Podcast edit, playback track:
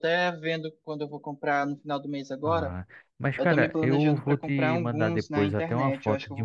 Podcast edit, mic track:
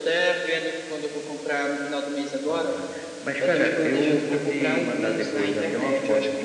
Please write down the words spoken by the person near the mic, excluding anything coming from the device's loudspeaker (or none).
none